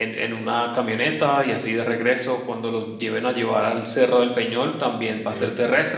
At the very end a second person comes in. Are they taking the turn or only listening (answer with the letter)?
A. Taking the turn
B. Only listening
B